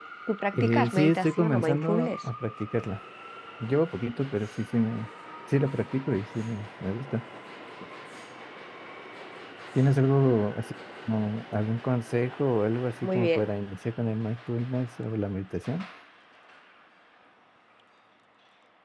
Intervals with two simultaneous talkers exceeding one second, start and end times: 0.5-2.1

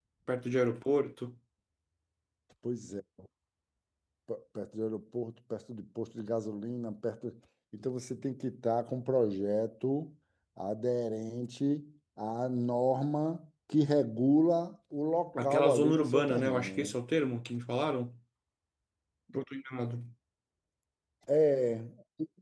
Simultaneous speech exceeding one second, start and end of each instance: 15.4-16.9

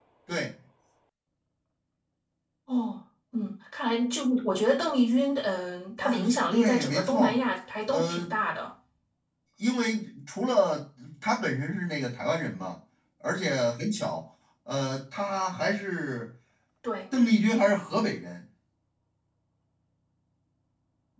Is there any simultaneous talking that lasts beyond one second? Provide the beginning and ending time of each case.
6.0-7.2

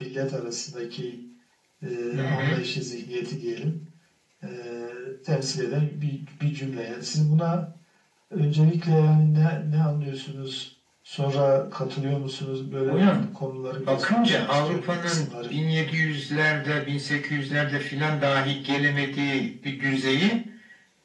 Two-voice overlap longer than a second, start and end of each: 13.8-15.5

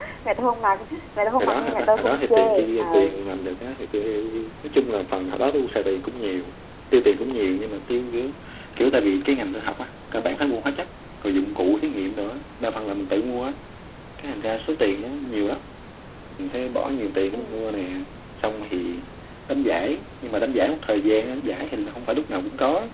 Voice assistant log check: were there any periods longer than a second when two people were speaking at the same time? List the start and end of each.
1.4-3.1

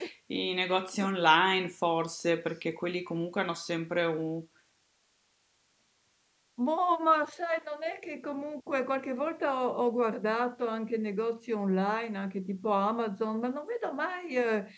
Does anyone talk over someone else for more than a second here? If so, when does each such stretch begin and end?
none

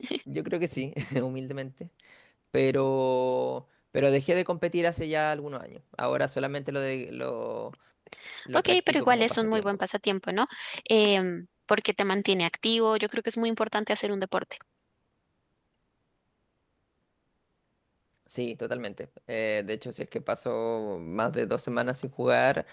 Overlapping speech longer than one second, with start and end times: 8.5-9.8

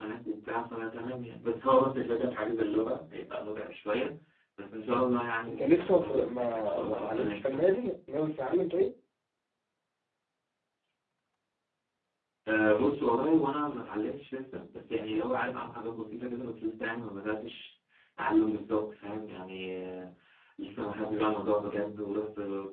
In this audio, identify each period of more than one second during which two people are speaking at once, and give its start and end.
5.5-7.9

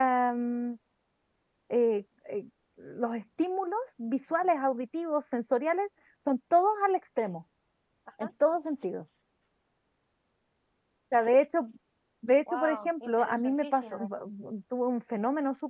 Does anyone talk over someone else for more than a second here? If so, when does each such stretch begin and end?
12.5-14.1

